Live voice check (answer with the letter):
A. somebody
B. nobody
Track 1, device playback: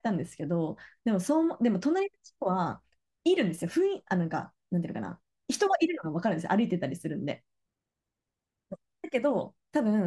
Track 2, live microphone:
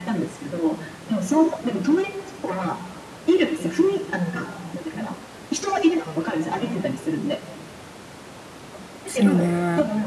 A